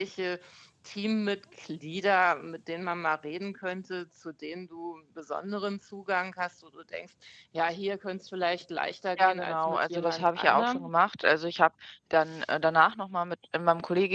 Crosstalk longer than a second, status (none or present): present